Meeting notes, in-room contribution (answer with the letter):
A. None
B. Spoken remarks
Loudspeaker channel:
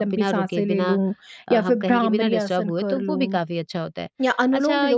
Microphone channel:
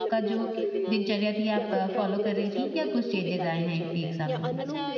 B